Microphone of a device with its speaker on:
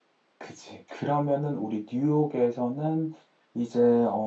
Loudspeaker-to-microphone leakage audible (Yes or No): No